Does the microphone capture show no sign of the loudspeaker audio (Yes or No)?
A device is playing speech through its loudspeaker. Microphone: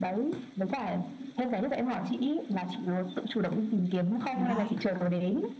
No